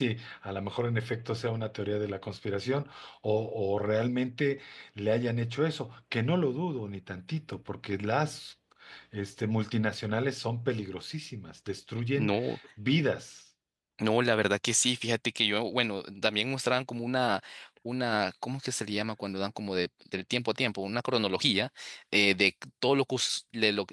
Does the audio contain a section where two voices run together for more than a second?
No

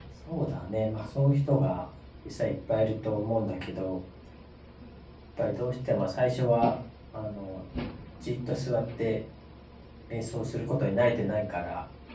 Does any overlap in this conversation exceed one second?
No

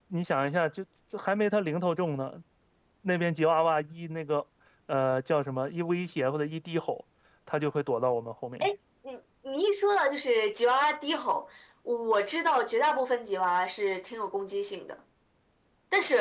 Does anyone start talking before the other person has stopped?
No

